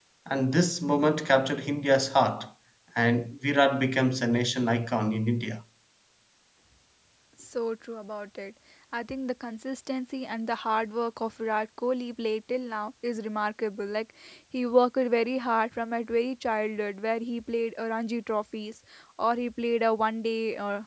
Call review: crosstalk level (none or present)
none